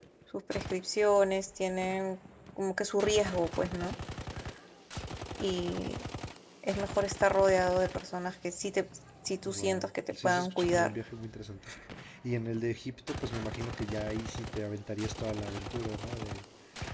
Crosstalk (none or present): present